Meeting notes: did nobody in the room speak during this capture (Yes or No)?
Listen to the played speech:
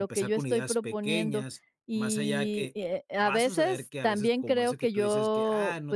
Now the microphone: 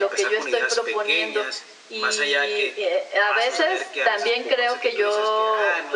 Yes